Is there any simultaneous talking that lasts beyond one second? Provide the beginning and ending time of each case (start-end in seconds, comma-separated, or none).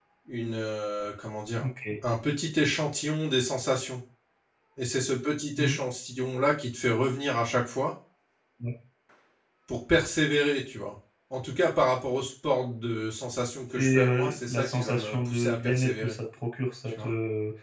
13.8-16.2